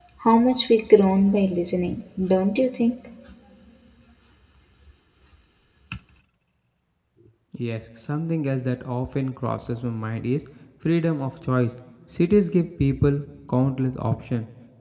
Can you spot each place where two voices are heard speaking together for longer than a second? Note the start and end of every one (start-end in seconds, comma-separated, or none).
none